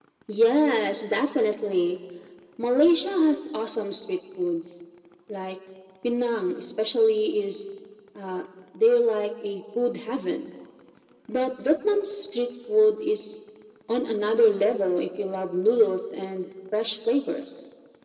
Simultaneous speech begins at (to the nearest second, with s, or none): none